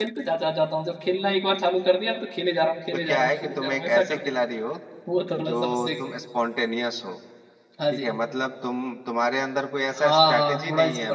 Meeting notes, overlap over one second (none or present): present